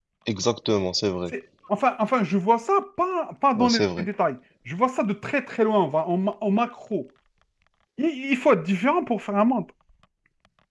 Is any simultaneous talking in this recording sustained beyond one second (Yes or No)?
No